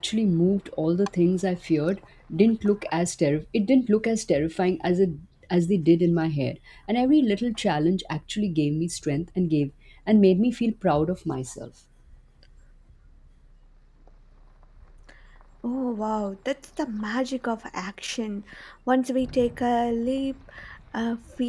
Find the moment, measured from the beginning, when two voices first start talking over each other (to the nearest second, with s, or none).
none